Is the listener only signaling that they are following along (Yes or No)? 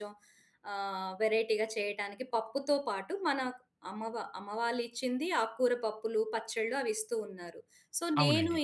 Yes